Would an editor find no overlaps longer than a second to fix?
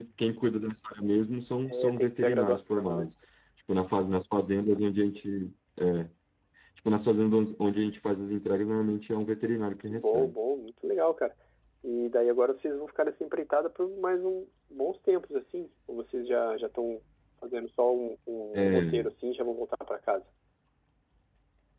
No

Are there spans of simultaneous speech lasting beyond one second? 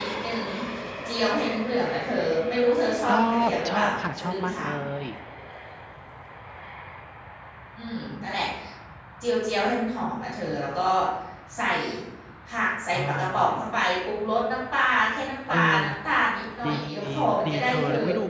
Yes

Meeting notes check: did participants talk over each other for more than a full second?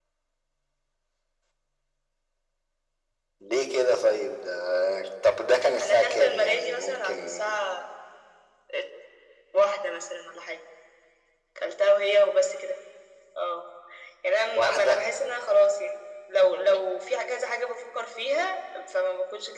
Yes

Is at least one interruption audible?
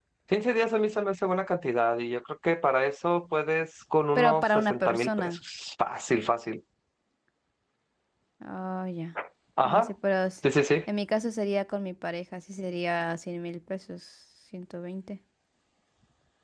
Yes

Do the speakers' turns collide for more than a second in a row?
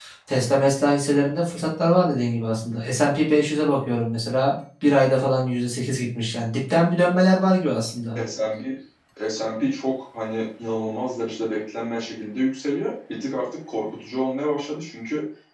No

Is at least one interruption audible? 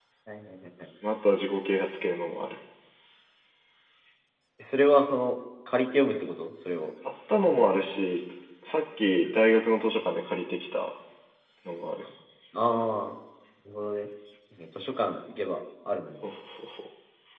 No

